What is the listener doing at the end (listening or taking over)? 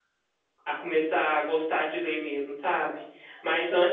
listening